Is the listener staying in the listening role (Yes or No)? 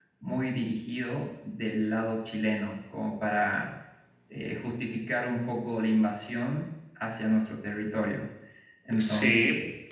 No